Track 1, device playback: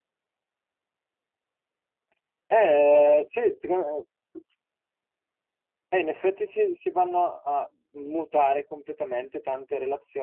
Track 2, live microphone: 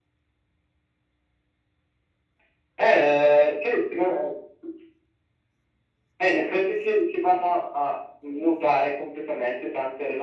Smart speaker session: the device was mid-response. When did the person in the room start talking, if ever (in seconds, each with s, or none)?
none